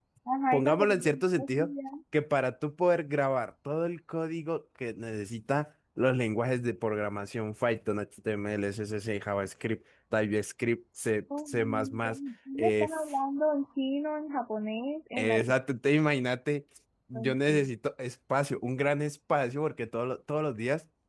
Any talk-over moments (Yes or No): Yes